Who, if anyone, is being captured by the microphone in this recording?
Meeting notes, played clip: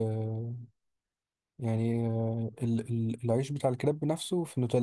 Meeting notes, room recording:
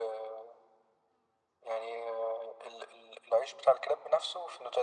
echo only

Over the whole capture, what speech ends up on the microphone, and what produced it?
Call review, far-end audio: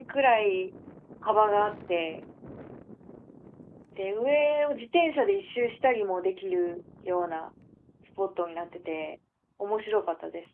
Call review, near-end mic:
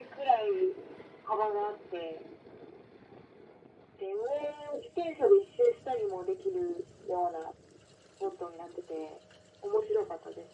echo only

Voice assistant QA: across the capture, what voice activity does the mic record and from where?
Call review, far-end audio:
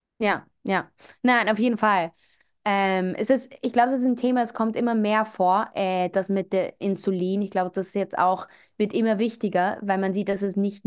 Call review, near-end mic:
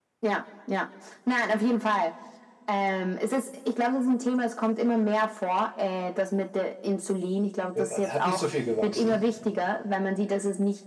both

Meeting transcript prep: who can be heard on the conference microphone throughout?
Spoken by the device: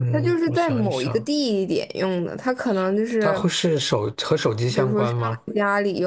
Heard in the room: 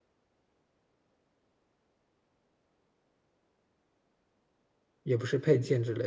user only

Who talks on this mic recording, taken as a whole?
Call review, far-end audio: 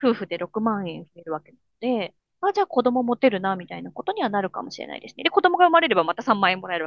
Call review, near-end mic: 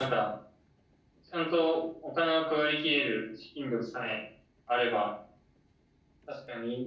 user only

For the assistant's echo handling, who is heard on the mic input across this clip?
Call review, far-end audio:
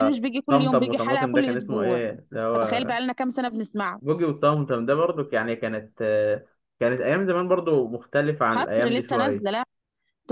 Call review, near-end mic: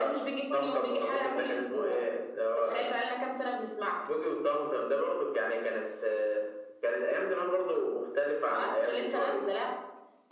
echo only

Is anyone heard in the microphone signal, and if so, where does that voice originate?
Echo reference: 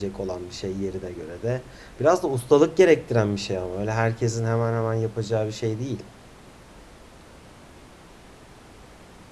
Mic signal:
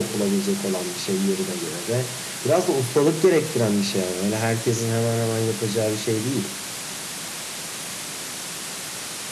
echo only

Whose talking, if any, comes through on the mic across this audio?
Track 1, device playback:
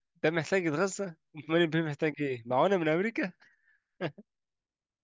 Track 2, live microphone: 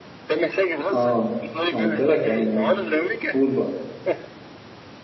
both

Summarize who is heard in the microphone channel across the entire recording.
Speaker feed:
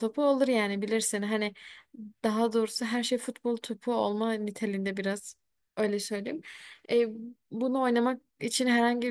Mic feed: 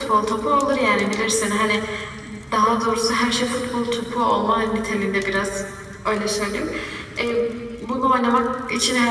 echo only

